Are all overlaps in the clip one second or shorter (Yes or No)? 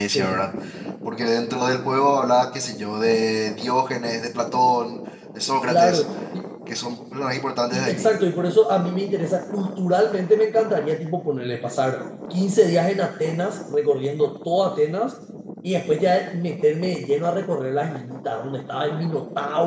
Yes